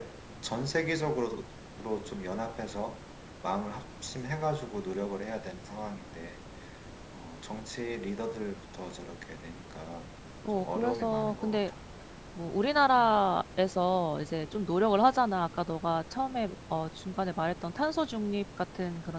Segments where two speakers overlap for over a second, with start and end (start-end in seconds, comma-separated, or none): 10.5-11.7